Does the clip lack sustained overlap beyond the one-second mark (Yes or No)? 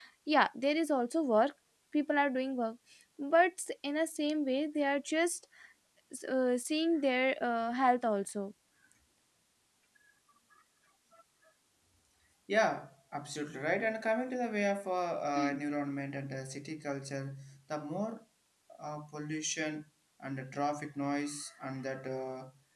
Yes